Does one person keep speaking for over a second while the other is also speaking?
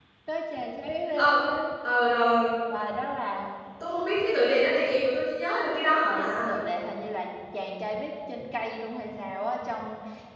No

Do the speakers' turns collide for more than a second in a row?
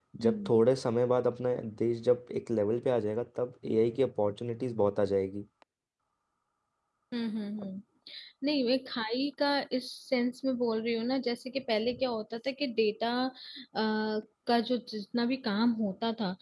No

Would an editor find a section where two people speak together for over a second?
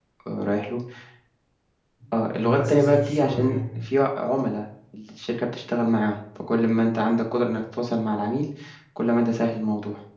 Yes, from 2.3 s

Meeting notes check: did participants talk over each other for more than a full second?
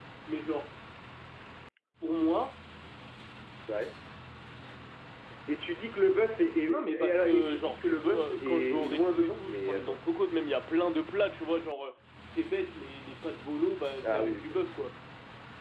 Yes, from 6.7 s

